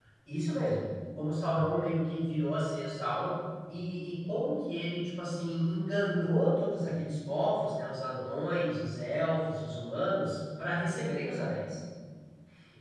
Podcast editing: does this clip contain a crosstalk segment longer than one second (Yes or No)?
No